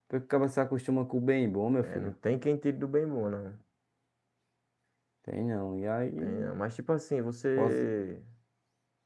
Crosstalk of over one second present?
No

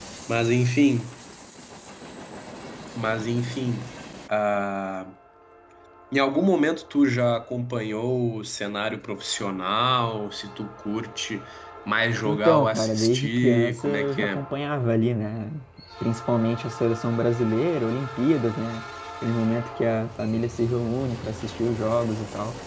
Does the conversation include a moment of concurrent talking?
Yes, from 12.2 s

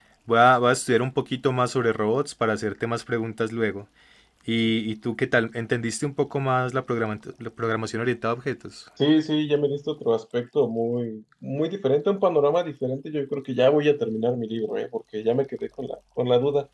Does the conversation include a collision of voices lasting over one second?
No

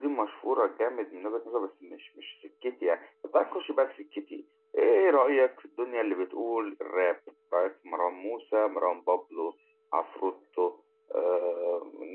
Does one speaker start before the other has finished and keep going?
No

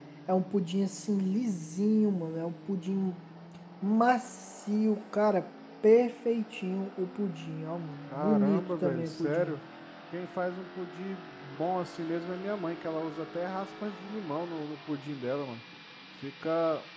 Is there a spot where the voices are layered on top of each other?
Yes, from 8.1 s

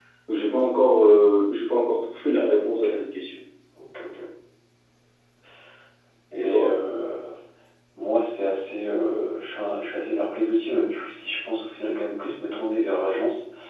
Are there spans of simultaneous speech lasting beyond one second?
No

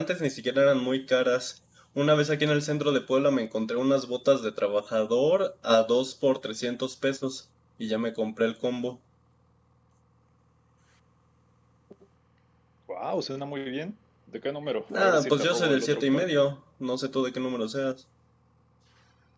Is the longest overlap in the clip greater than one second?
Yes, from 14.9 s

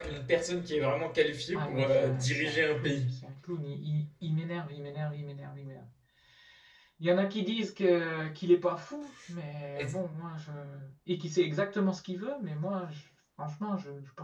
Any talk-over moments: Yes, from 1.5 s

